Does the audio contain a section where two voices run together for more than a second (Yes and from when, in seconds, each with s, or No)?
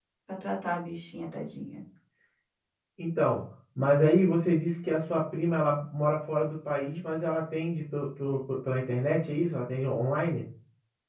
No